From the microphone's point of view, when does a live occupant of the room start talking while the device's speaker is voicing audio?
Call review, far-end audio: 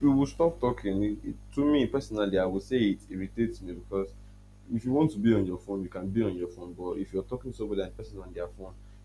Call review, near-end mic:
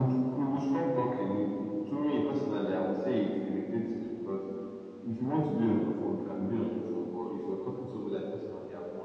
none

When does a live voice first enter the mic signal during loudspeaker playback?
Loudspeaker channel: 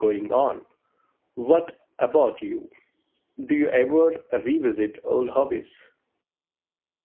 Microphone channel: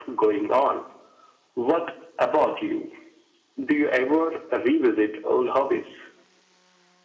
none

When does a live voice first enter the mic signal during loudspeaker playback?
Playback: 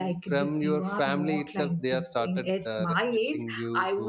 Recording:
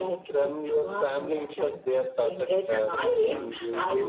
2.7 s

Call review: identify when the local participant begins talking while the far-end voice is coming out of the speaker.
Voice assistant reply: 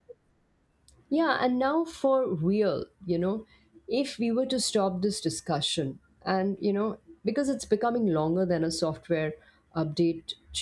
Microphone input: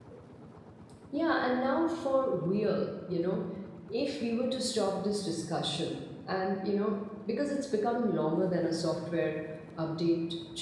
none

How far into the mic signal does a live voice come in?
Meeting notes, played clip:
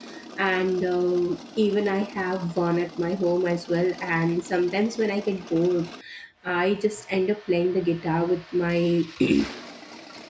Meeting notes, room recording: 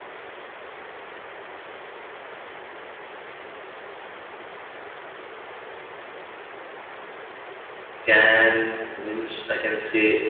8.0 s

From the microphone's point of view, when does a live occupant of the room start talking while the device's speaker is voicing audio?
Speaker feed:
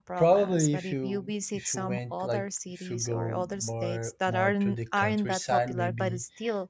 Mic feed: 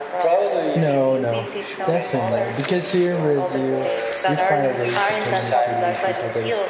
0.7 s

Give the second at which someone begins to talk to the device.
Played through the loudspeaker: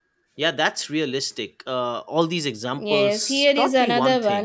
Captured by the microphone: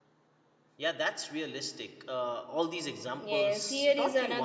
none

